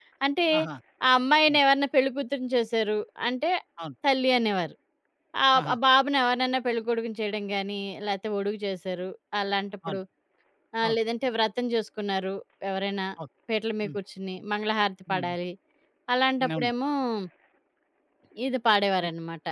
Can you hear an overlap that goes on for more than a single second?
No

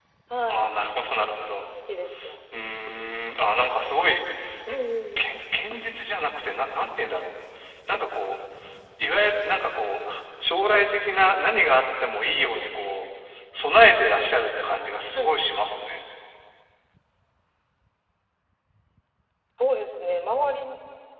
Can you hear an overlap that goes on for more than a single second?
No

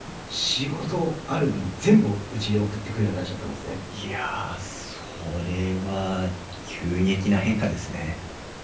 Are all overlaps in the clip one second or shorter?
Yes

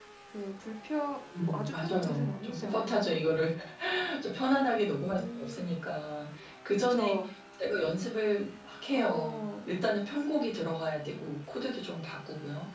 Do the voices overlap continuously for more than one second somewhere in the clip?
Yes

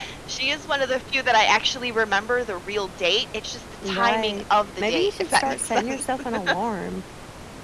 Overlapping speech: Yes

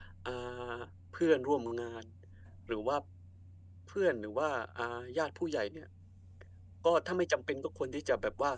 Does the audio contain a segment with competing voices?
No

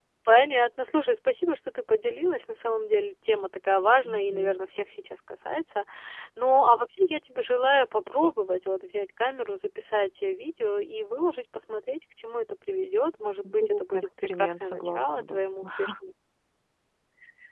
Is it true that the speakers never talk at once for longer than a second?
No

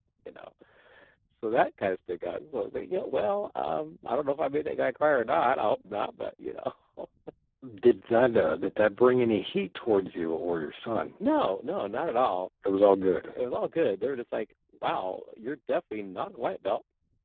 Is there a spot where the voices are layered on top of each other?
No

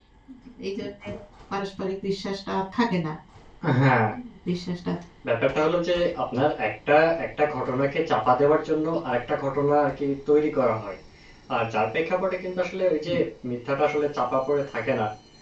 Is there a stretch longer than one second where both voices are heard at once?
No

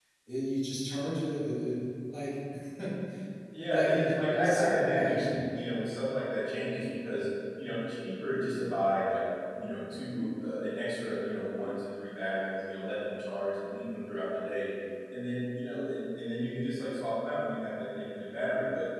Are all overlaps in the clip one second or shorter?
No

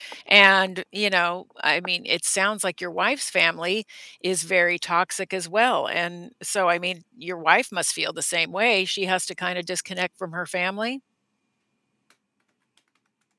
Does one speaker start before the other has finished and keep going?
No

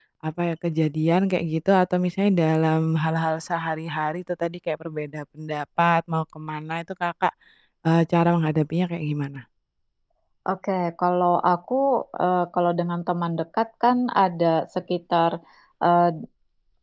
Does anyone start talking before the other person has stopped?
No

